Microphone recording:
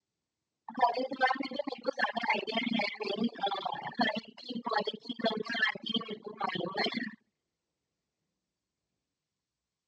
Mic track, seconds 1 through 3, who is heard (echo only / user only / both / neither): echo only